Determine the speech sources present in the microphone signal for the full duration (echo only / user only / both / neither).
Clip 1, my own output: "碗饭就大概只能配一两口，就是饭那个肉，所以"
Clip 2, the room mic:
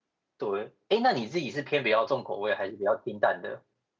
user only